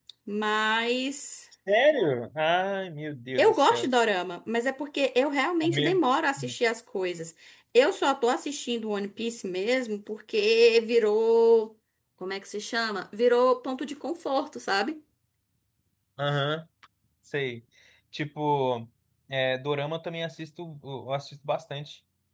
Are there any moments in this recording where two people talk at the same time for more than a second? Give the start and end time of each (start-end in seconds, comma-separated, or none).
none